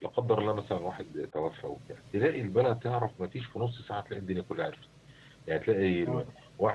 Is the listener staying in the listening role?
Yes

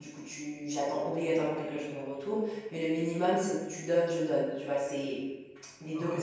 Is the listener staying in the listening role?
No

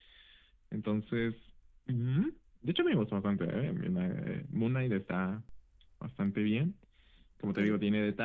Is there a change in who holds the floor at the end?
No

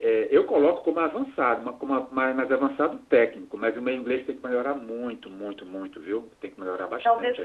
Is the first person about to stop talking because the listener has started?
Yes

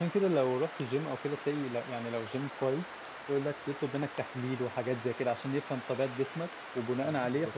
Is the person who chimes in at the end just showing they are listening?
Yes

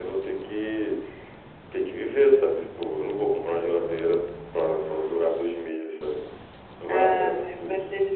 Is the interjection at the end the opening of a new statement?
Yes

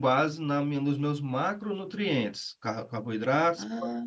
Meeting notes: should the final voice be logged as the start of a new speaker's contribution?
No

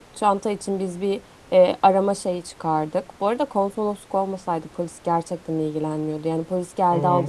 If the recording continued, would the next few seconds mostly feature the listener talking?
Yes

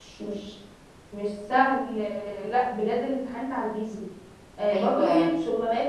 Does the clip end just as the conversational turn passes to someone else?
No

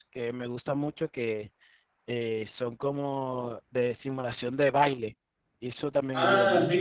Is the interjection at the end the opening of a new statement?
Yes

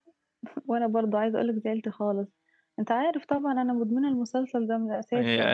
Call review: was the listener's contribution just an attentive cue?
No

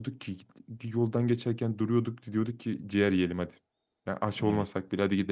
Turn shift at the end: No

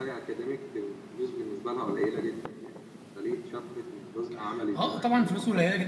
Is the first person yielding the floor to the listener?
Yes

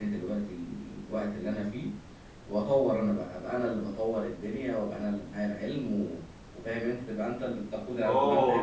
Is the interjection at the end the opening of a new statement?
Yes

